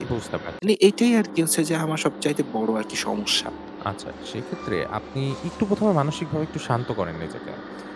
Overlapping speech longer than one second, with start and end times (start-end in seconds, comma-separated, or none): none